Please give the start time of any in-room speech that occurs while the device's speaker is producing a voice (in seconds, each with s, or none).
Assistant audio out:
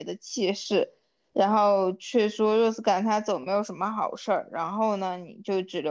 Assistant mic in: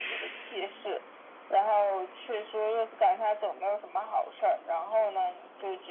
none